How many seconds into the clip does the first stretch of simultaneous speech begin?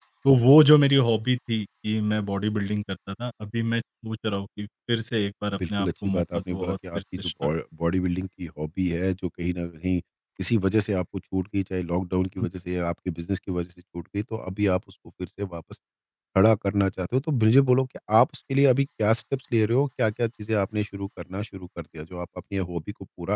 6 s

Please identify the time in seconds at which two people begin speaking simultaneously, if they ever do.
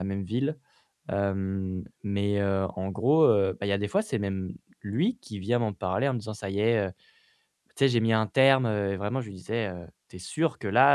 none

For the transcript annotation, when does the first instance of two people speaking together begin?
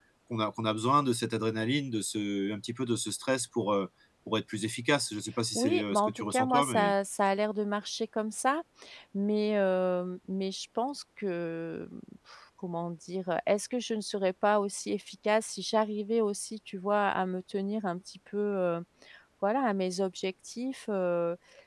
6 s

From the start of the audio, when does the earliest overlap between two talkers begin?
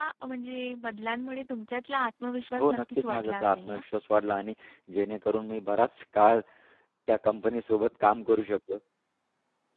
3 s

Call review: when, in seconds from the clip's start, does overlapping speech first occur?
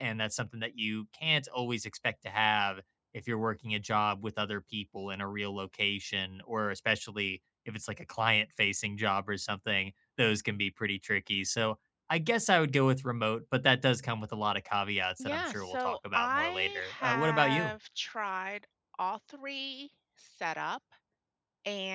15 s

